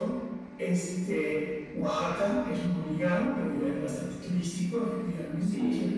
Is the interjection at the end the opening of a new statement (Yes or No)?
No